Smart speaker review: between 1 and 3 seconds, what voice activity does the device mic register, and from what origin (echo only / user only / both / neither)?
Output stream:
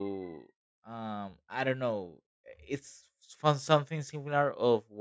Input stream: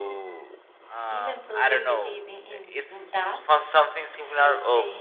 both